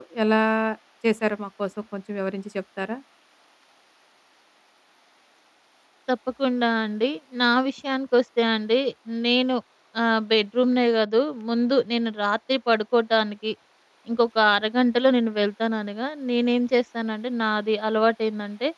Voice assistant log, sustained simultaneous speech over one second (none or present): none